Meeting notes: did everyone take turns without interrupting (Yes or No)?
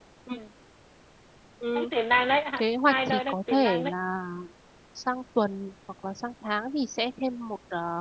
No